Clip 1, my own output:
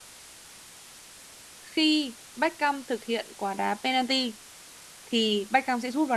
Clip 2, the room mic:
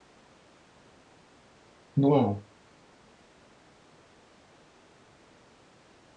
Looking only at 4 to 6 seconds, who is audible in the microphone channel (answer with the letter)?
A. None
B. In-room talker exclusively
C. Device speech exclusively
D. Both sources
A